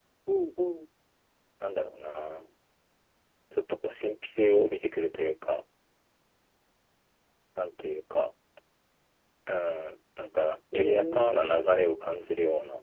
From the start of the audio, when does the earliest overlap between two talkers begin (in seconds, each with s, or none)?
10.7 s